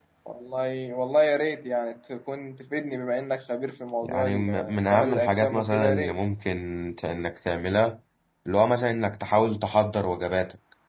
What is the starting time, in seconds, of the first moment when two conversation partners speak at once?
4.0 s

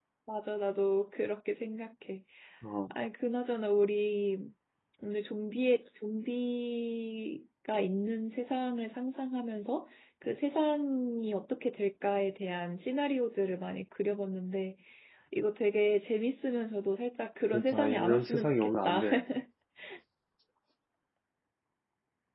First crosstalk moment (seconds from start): 17.5 s

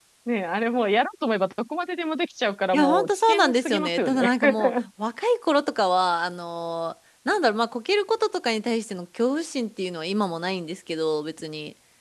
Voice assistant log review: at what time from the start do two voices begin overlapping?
2.7 s

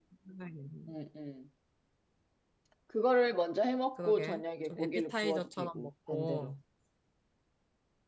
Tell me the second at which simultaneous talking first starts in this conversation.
4.0 s

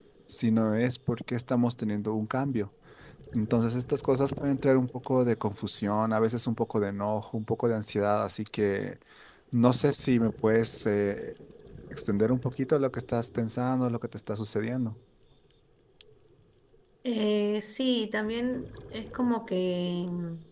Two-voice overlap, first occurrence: none

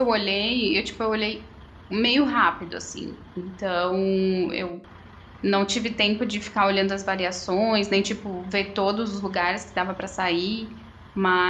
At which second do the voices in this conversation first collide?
none

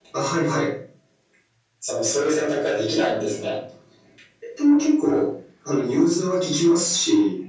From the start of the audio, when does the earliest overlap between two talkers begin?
none

